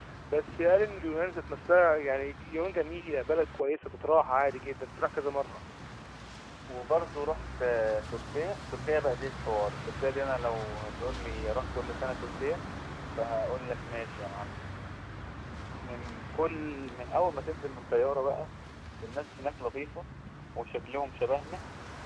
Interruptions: none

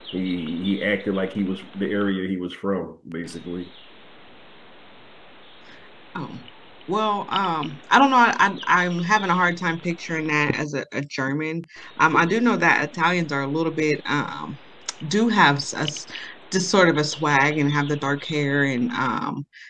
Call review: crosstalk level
none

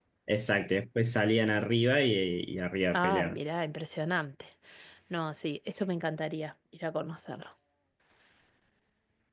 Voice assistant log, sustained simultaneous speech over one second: none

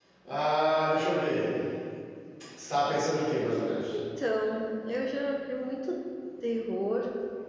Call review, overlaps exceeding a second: none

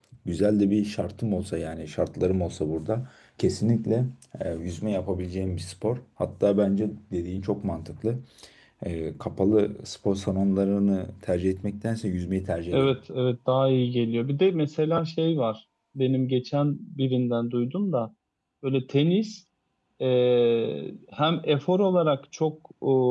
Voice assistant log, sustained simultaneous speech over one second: none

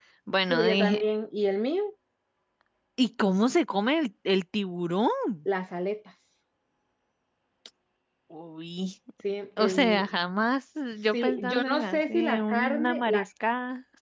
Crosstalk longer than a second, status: present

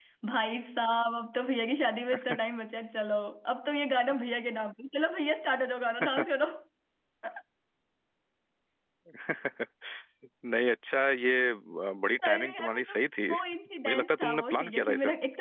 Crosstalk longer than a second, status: present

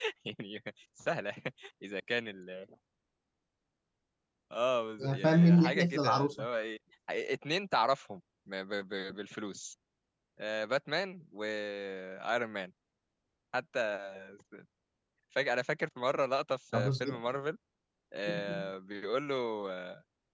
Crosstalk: present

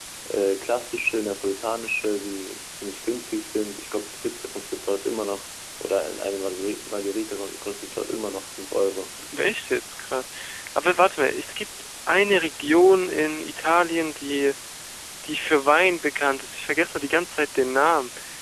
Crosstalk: none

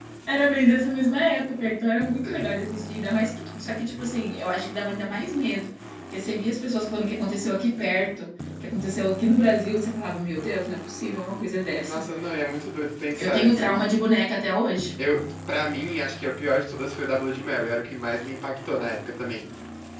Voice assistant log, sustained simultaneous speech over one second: none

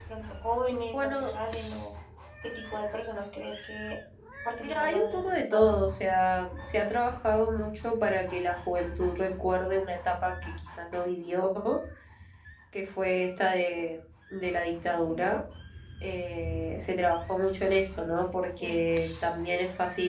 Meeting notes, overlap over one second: present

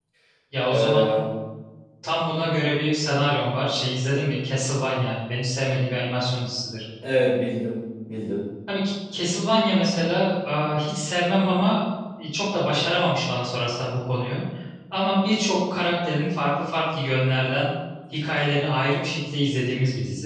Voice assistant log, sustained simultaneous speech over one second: none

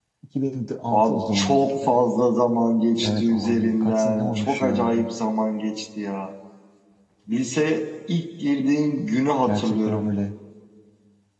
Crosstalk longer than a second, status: present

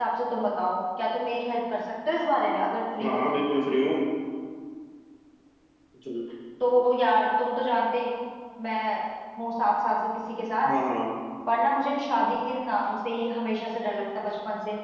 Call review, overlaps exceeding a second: none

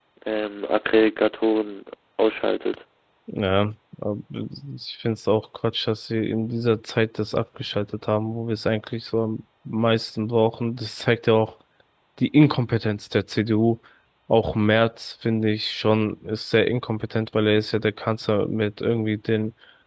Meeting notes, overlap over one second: none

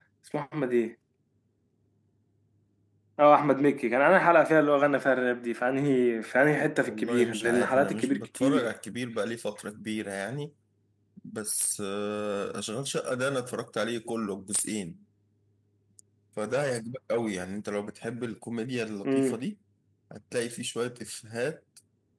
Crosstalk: present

